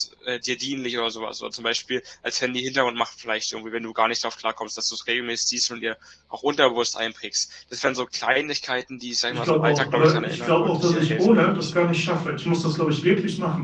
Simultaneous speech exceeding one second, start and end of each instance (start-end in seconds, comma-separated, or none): 9.3-11.7